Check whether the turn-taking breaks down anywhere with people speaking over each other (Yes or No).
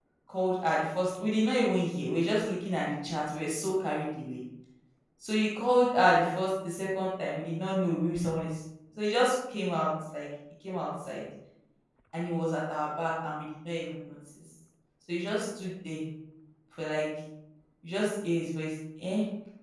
No